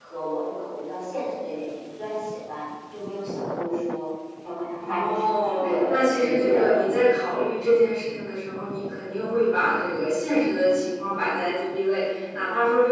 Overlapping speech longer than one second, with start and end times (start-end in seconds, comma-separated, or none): 4.9-7.0